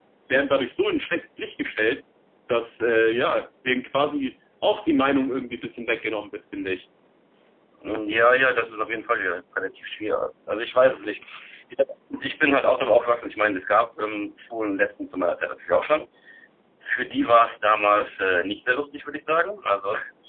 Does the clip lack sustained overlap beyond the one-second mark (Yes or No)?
Yes